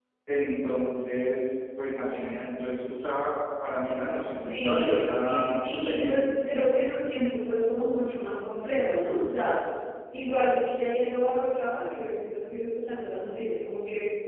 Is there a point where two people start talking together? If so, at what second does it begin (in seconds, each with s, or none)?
4.1 s